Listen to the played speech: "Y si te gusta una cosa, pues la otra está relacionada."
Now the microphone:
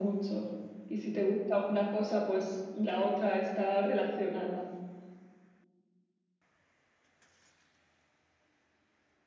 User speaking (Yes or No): No